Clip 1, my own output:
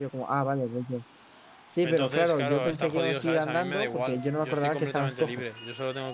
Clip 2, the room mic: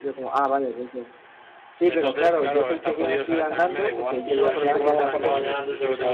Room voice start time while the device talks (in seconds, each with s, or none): 4.2 s